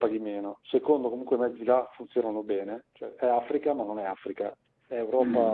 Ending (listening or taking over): taking over